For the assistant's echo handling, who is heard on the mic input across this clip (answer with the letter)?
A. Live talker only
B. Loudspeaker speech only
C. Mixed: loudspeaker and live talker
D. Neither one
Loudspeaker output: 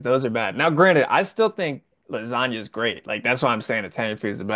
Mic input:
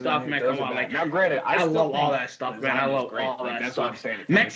C